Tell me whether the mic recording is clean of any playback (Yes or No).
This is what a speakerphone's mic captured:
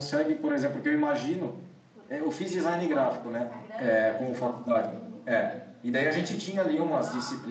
No